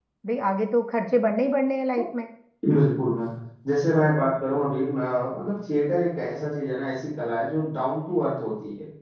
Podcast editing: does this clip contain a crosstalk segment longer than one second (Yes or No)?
No